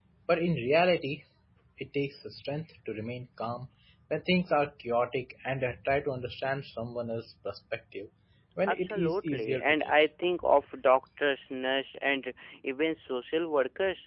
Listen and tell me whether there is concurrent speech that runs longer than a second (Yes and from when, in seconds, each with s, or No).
Yes, from 8.7 s